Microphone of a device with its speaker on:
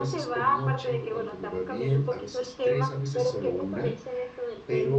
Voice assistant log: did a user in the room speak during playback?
Yes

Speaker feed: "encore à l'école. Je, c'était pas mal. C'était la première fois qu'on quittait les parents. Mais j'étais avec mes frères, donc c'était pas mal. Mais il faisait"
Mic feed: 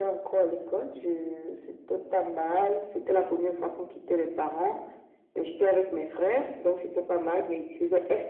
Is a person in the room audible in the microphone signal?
No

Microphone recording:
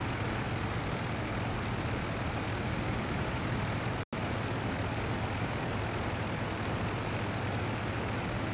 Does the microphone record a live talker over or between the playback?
No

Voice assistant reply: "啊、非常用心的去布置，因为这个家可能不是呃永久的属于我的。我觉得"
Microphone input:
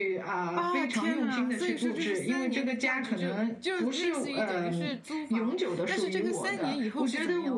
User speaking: Yes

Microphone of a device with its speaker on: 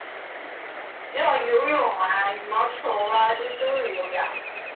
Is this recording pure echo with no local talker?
Yes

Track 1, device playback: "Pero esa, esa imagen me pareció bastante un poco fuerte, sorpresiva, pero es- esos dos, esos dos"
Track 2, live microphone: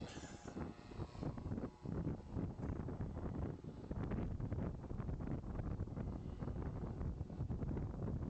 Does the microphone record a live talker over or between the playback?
No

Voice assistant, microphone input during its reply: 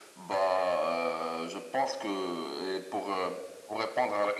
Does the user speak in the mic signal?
No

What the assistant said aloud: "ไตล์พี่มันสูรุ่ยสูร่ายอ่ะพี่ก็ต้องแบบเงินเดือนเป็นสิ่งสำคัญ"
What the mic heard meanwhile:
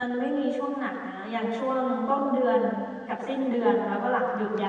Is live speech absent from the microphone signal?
No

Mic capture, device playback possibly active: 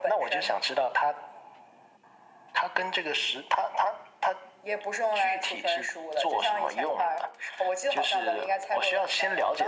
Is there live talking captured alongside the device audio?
No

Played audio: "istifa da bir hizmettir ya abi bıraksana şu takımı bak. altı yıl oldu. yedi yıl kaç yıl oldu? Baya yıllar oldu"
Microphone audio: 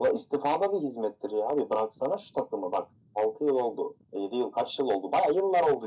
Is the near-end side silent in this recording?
Yes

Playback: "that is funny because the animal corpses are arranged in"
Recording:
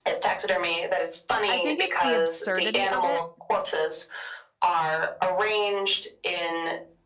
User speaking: Yes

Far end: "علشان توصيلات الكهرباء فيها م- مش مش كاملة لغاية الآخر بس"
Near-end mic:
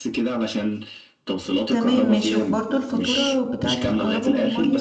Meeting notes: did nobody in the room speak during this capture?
No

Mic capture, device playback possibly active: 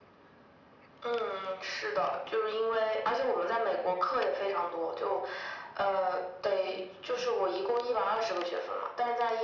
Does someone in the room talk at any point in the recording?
No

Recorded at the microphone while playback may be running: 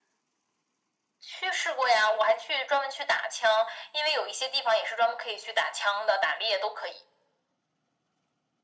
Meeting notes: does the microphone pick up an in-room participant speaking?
No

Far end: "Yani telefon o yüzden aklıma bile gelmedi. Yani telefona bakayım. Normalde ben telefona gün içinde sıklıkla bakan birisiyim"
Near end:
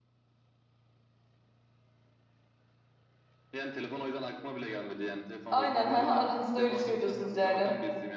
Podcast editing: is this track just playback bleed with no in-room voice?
No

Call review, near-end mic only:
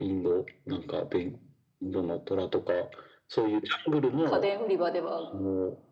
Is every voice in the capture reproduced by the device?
No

